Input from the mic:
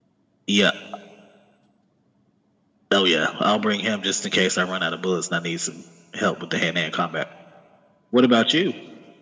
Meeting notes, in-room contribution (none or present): none